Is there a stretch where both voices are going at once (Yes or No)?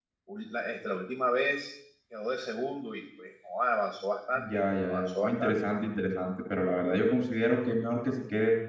Yes